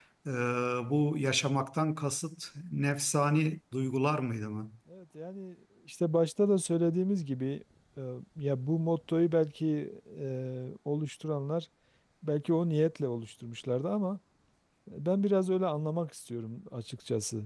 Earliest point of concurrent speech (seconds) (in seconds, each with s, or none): none